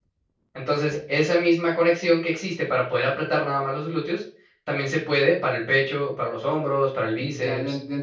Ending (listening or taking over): taking over